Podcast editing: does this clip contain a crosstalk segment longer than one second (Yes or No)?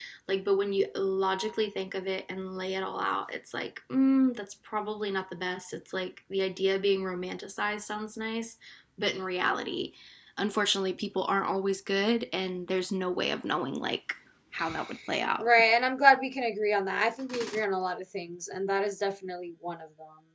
No